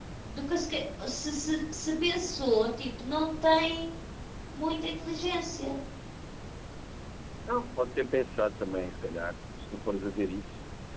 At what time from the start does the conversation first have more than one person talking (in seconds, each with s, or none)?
none